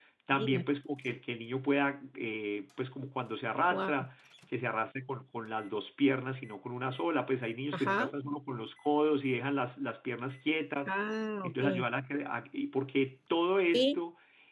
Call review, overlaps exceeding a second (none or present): none